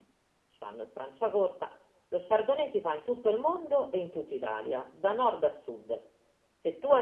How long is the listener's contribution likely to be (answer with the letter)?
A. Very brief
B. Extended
A